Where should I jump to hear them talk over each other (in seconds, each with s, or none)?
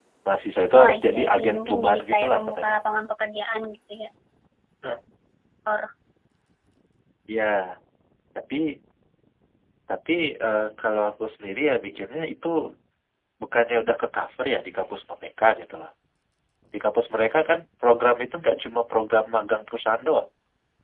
0.7 s